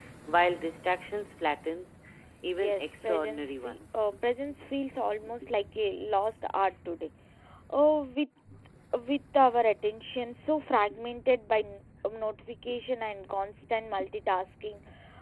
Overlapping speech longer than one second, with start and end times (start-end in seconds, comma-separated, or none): 2.6-4.0